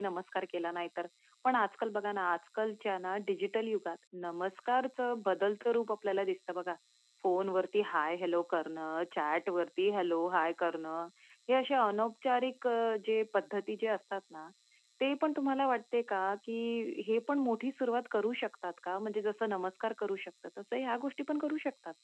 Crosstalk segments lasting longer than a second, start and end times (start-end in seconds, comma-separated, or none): none